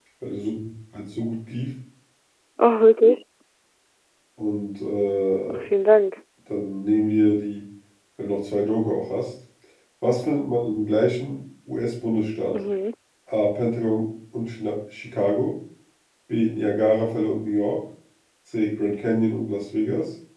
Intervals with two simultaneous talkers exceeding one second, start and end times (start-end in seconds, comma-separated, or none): none